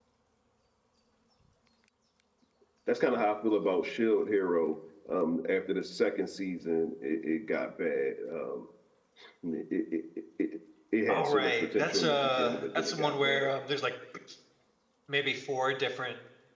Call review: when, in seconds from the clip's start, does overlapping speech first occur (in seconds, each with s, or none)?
11.1 s